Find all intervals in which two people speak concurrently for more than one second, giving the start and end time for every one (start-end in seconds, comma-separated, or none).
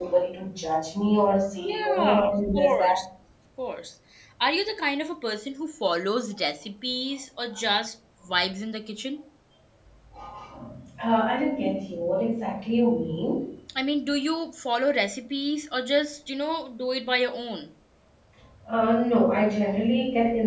1.6-3.0